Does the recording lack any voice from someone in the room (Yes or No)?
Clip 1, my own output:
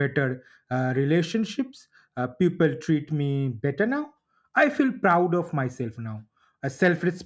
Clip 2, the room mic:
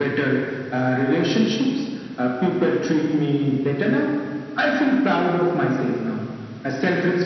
Yes